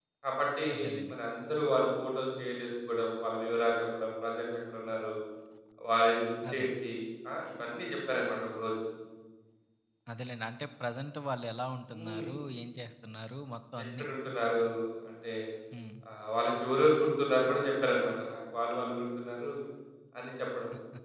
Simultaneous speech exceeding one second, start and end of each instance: none

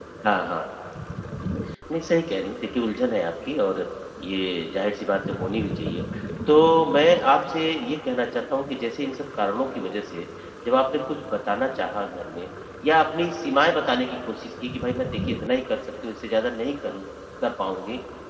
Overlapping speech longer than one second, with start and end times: none

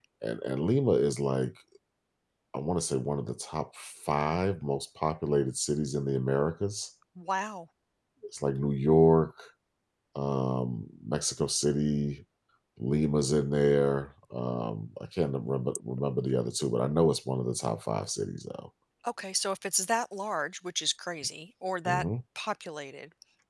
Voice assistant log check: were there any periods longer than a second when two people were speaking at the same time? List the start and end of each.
none

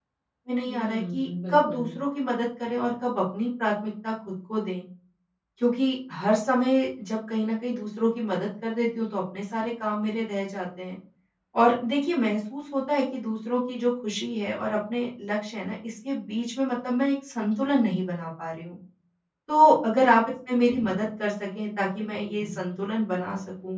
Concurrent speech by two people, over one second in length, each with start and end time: 0.7-1.9

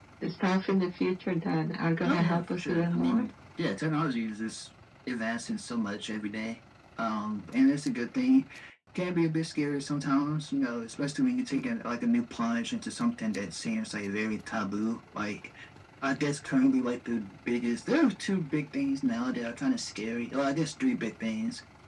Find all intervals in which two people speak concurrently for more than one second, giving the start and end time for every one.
2.0-3.2

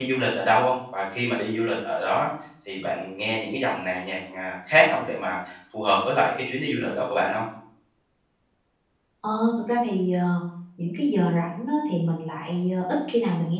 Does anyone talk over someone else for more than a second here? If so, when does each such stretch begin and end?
none

